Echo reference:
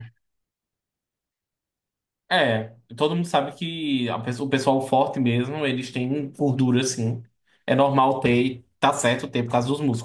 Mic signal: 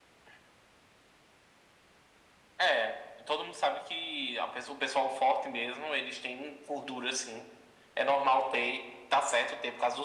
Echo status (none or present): present